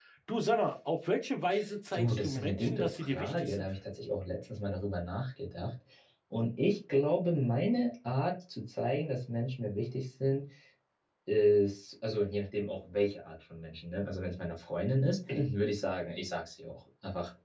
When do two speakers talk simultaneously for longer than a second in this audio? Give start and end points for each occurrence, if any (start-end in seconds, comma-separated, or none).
1.9-3.7